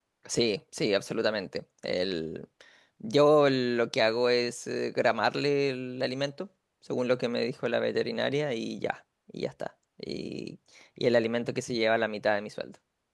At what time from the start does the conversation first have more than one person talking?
none

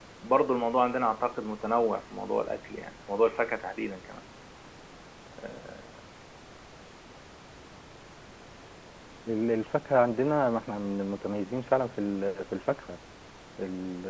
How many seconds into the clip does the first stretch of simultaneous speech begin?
none

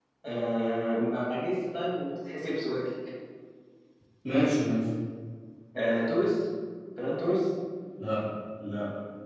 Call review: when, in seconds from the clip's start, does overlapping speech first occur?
none

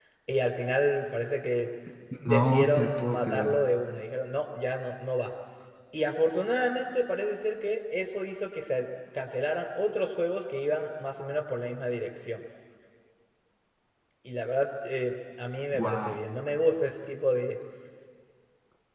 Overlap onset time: 2 s

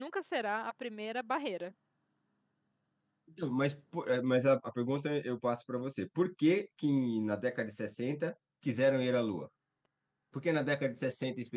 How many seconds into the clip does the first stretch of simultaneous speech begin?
none

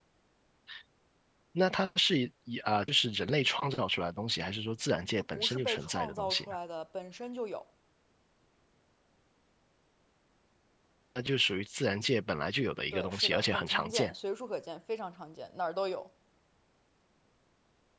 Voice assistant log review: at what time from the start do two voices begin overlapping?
5 s

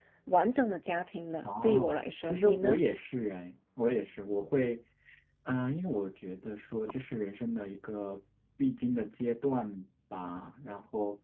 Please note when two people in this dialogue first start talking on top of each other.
1 s

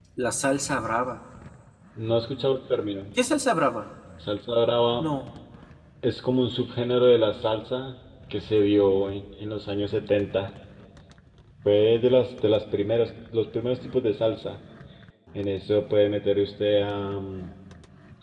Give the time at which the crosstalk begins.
none

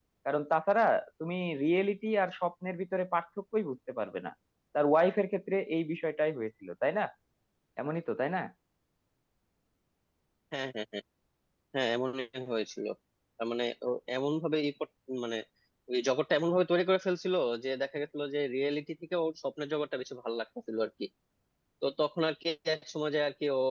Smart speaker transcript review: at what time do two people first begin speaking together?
none

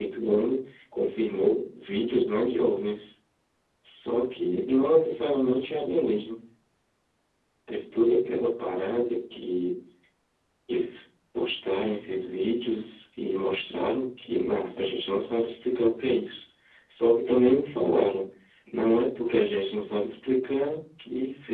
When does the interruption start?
none

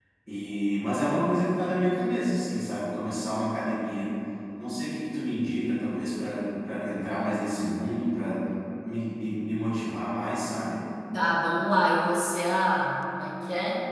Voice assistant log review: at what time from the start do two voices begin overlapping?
none

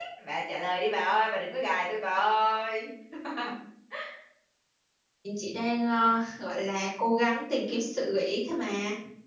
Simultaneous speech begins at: none

